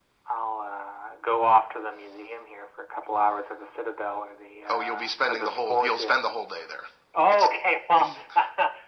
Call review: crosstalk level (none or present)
present